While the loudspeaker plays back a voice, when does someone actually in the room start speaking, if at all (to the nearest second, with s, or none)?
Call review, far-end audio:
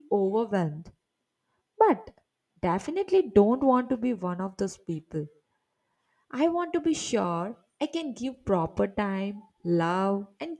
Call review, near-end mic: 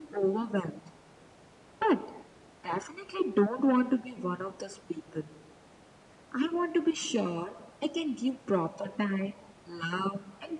none